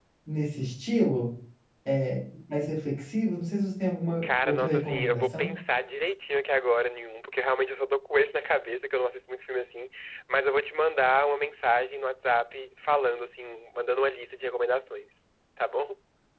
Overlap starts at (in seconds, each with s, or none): 4.2 s